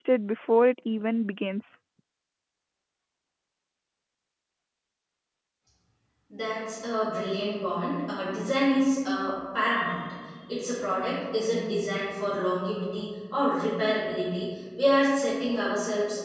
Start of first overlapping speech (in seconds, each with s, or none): none